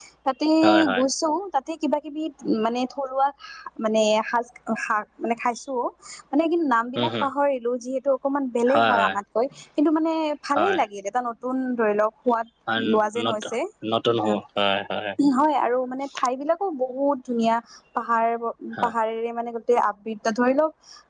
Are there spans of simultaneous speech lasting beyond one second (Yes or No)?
No